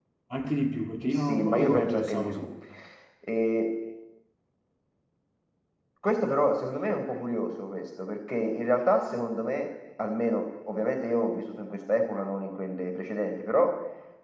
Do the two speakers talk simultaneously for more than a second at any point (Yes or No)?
Yes